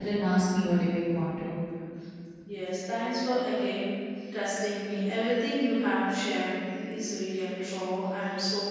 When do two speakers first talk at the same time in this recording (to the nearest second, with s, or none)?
none